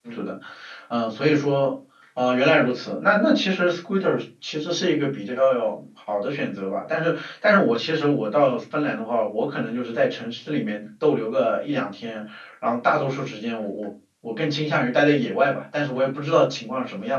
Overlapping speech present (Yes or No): No